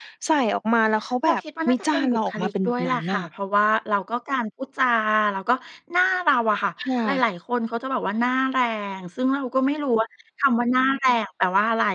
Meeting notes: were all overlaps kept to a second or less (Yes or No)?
No